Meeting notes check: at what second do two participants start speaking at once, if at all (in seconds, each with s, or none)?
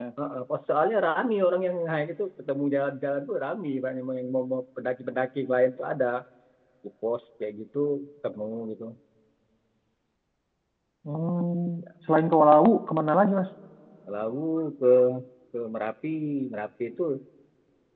none